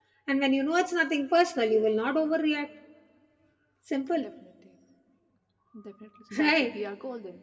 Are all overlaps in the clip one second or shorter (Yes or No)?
Yes